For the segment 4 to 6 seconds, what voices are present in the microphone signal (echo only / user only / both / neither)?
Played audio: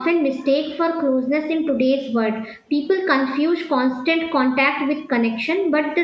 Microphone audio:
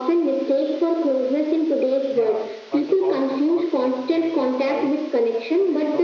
both